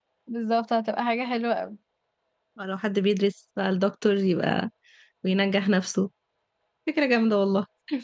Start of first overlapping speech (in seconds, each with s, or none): none